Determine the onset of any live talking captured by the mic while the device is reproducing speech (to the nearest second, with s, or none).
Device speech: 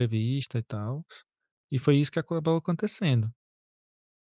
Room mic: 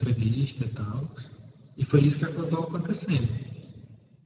none